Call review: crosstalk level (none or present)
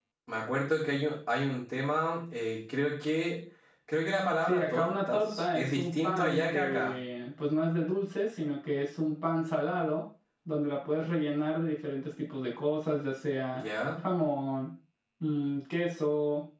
present